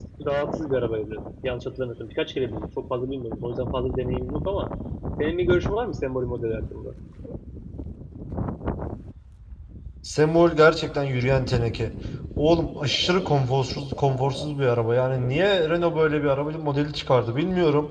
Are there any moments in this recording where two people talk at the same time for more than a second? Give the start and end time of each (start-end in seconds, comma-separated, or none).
none